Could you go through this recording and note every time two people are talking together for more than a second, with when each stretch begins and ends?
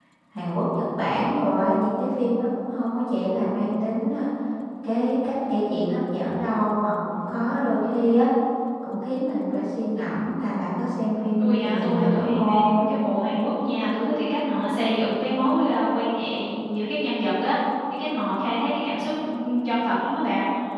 11.4-12.9

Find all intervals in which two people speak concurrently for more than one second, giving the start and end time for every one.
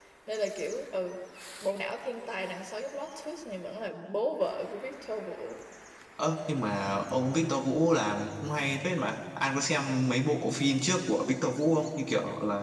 none

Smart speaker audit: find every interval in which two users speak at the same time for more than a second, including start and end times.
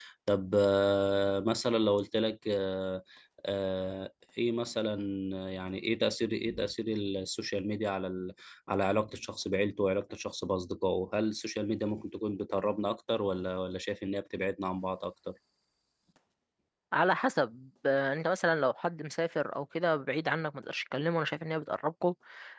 none

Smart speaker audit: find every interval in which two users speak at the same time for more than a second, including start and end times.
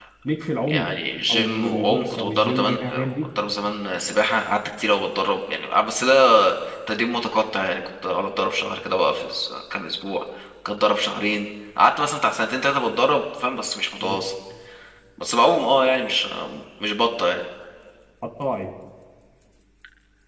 1.3-3.2

